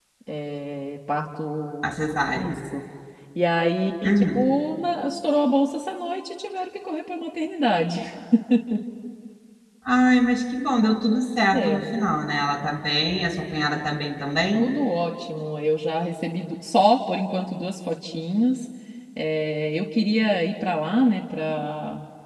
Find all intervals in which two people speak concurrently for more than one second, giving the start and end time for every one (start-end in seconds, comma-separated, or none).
none